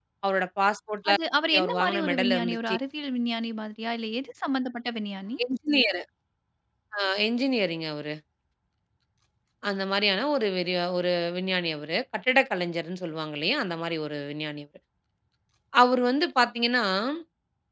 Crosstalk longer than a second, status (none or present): present